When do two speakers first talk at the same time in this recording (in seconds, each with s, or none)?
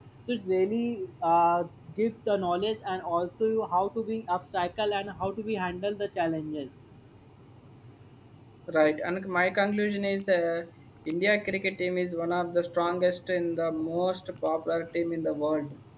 none